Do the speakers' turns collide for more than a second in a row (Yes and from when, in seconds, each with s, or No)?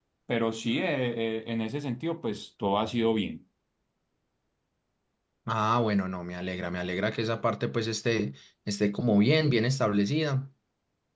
No